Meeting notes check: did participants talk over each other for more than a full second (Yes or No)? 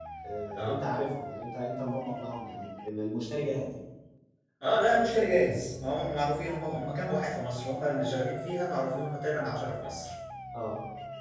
No